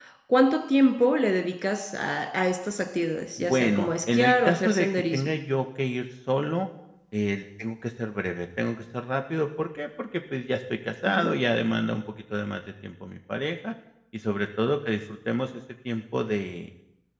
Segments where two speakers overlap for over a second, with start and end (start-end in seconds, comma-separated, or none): 3.4-5.3